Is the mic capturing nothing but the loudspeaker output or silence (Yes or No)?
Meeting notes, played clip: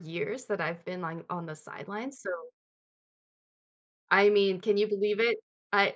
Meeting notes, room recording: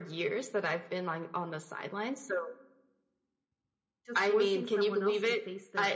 No